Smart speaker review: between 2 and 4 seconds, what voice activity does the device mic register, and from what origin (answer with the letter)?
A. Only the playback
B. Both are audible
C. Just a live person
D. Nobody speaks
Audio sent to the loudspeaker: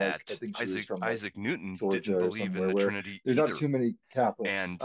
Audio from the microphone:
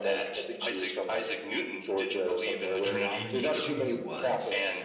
B